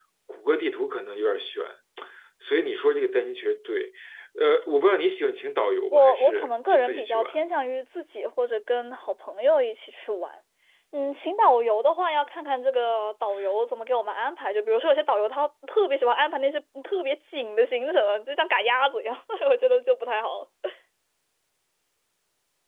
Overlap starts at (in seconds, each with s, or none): 5.9 s